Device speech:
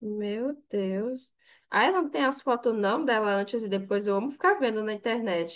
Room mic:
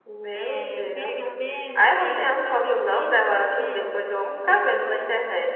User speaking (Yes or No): Yes